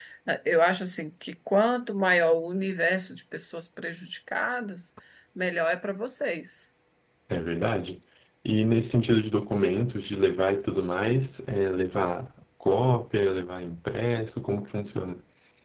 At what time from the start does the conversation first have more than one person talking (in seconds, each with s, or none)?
none